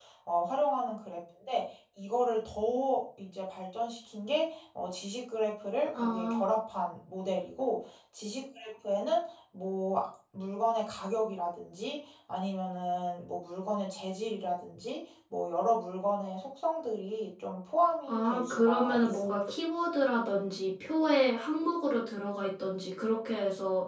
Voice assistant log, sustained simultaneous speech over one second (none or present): present